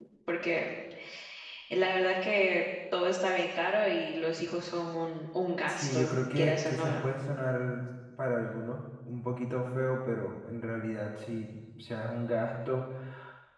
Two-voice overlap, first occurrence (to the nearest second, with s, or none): 6 s